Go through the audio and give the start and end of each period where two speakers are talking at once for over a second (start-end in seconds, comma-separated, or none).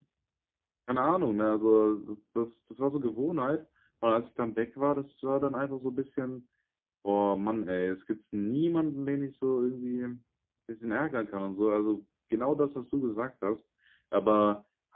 none